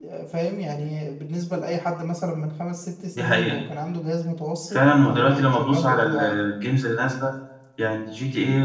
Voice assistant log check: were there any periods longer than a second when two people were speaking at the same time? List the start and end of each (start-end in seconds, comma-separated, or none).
4.7-6.4